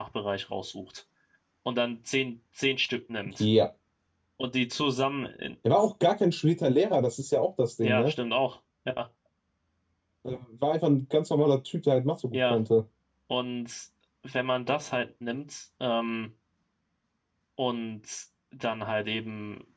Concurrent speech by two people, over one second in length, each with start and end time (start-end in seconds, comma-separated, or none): none